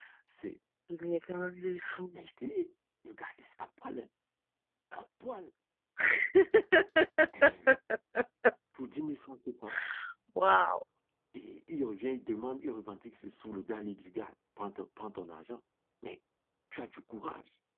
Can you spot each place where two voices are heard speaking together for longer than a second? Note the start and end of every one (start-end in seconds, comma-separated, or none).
none